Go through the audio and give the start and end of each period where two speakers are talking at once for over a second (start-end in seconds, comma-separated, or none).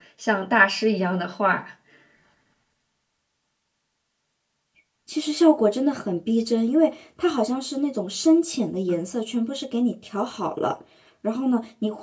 none